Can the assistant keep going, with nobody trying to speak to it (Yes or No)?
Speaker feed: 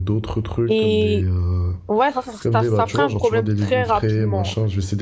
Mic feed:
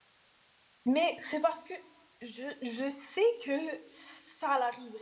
No